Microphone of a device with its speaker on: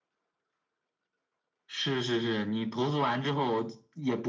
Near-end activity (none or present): none